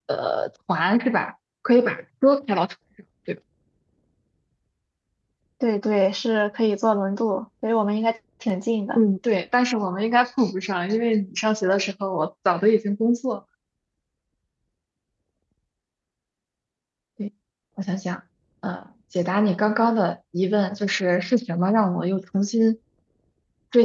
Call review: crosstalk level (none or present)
none